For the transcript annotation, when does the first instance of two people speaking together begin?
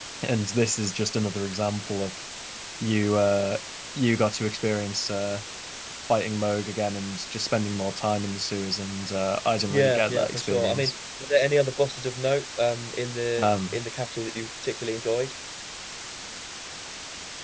9.7 s

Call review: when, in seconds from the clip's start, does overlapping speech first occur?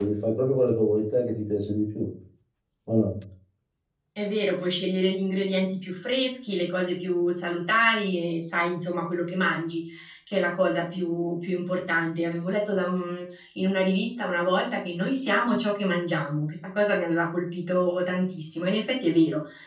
none

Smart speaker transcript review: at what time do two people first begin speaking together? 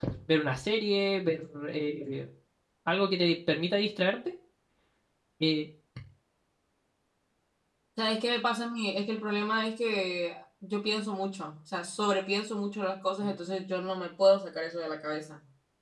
none

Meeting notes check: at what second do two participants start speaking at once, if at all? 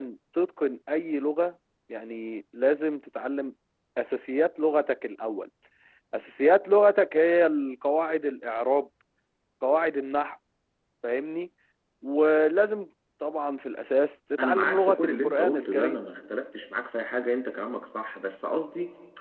14.4 s

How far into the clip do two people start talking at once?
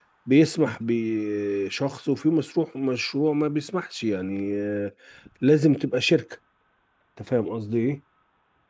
none

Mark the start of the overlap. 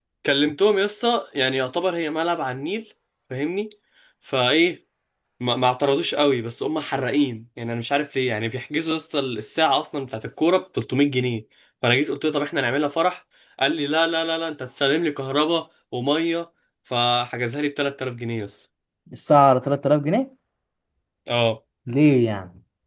none

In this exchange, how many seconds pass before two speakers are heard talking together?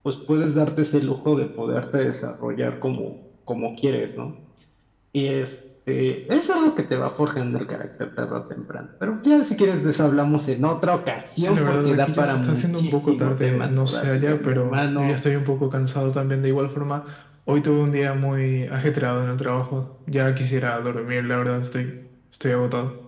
11.4 s

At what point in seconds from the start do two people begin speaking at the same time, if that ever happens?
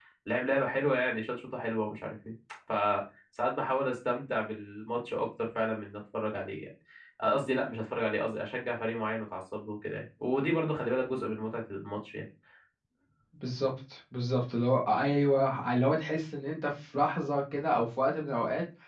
none

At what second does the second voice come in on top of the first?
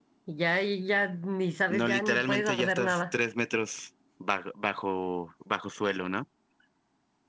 1.7 s

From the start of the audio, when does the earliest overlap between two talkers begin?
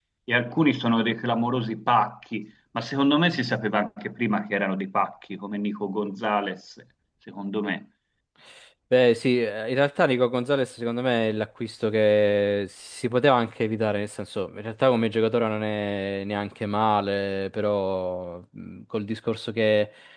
none

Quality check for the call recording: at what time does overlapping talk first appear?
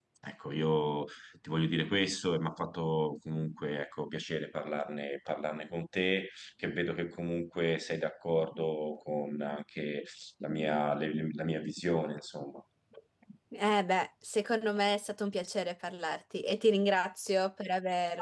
none

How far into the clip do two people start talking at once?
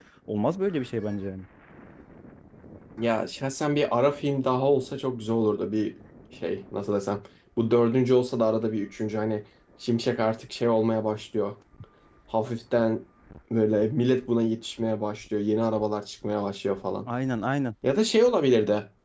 none

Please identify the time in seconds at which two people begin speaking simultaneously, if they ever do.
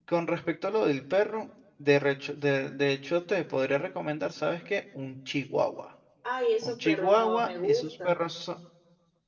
6.6 s

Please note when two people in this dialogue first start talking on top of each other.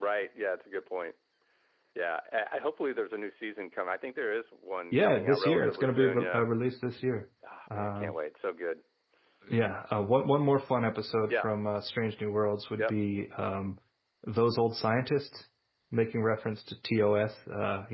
4.9 s

